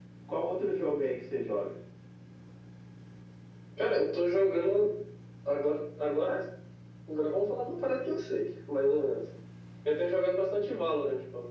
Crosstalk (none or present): none